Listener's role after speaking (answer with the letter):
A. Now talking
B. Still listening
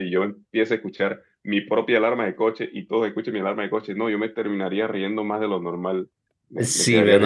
A